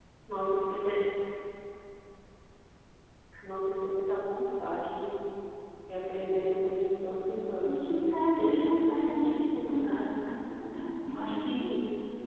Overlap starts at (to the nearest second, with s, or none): 8 s